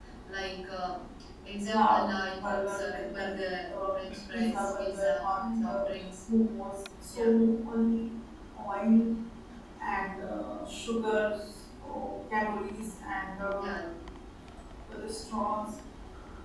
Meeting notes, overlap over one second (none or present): present